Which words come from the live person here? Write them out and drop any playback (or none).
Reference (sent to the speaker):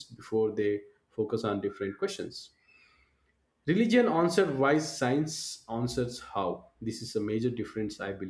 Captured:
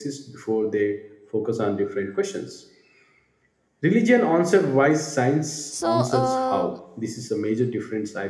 so um,